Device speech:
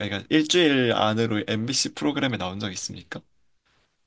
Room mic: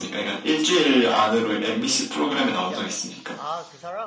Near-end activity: present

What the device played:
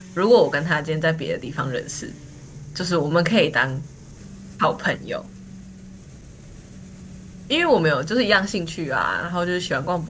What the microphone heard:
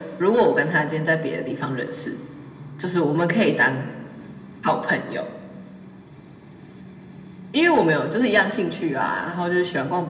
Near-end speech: none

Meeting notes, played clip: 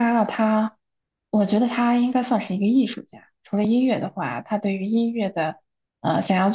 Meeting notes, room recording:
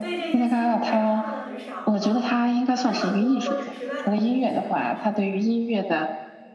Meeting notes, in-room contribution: present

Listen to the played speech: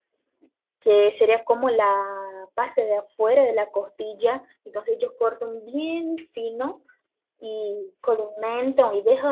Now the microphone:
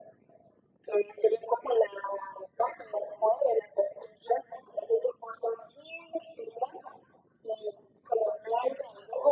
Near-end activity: none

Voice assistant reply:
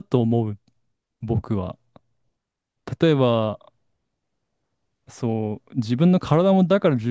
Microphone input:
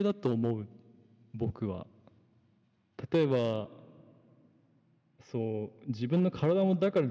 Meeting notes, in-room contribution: none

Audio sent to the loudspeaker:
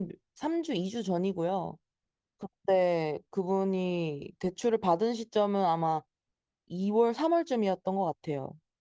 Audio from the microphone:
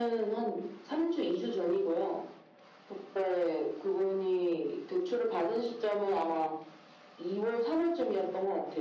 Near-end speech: none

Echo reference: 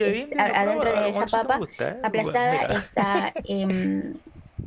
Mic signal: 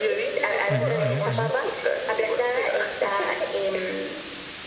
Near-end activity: present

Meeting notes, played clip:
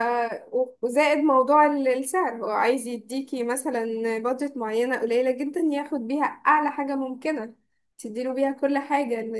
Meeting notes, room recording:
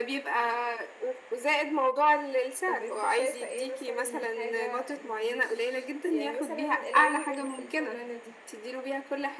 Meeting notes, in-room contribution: present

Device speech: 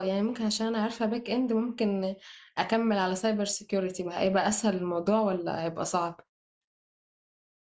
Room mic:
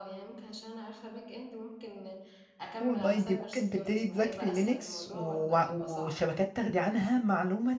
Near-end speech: present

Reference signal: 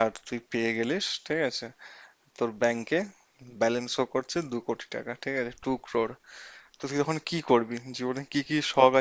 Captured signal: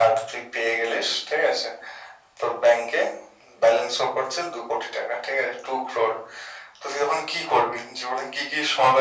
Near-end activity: none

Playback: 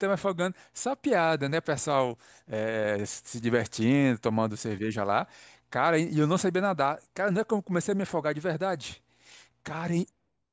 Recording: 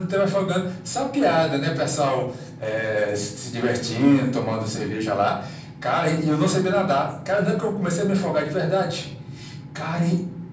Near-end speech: none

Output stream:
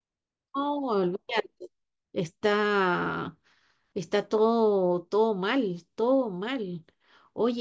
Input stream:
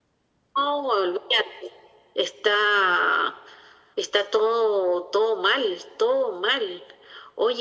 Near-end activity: none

